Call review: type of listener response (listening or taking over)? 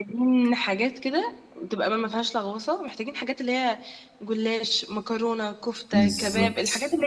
listening